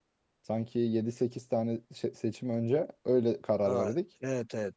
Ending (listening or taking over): taking over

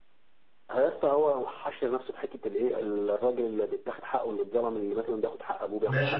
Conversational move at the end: taking over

